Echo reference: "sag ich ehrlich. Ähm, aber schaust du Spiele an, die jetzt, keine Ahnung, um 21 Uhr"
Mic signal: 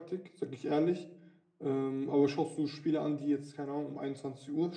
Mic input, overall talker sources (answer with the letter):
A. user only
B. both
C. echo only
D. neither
C